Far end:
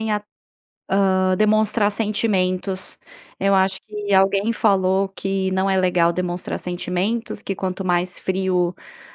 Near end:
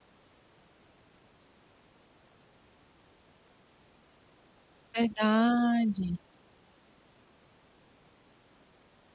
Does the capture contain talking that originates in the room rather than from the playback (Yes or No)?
Yes